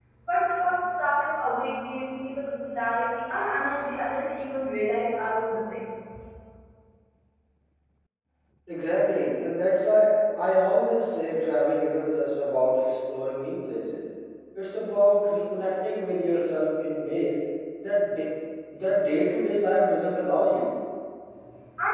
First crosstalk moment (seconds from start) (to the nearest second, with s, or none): none